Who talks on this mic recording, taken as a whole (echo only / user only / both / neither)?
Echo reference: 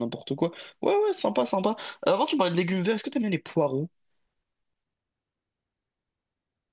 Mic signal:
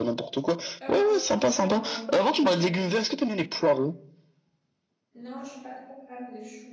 both